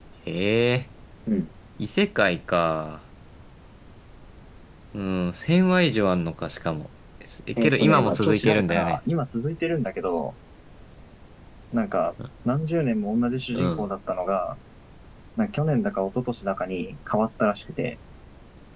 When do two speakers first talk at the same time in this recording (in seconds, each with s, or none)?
7.6 s